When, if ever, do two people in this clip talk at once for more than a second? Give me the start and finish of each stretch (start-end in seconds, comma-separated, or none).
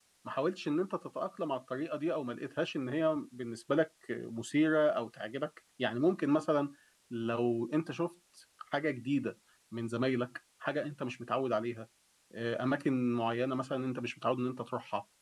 none